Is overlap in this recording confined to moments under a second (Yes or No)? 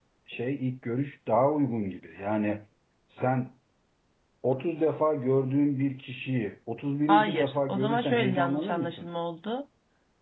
No